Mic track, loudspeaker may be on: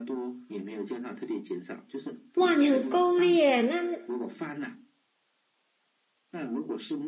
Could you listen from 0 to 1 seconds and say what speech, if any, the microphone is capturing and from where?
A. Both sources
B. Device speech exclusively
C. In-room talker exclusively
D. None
B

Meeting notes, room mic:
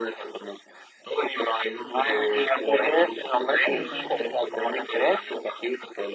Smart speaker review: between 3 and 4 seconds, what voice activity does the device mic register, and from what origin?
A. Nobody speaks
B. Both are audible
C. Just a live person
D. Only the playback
B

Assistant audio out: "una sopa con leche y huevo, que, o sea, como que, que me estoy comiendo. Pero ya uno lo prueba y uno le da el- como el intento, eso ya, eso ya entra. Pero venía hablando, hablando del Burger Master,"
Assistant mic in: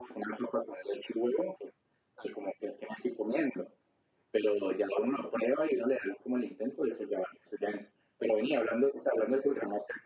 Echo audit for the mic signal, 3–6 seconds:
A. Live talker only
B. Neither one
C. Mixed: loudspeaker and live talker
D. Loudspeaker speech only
D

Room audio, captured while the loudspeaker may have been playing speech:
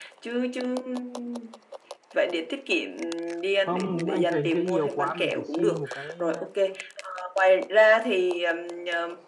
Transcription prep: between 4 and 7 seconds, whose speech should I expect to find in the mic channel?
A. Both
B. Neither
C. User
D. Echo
A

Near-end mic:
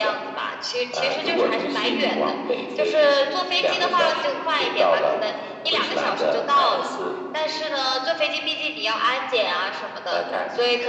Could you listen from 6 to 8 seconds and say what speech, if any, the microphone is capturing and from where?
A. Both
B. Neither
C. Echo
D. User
C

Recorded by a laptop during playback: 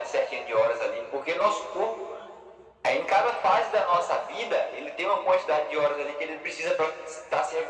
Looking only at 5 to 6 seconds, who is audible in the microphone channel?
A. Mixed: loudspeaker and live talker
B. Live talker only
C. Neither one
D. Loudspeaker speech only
D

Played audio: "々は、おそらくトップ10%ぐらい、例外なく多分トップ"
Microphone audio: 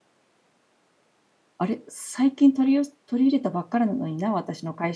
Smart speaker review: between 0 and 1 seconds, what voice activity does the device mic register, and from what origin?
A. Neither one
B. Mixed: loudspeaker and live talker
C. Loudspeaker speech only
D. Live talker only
A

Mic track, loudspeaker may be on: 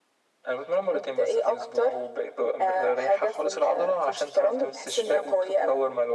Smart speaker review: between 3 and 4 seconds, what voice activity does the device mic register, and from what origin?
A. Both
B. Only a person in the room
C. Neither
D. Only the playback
D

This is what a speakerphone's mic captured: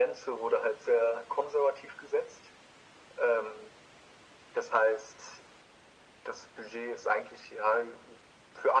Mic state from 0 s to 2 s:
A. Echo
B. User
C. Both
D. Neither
A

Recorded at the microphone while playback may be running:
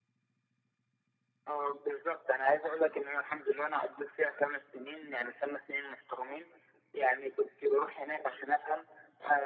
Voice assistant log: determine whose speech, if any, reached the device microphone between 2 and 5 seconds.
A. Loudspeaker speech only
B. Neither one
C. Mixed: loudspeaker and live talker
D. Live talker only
A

